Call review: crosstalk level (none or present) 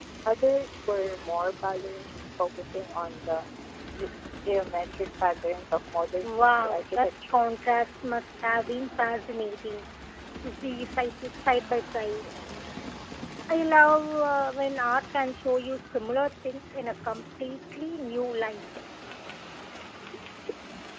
present